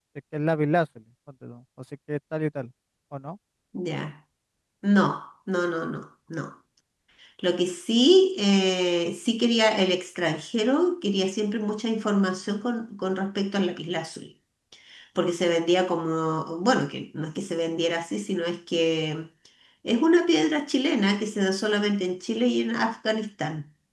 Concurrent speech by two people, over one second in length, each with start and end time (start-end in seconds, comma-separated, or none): none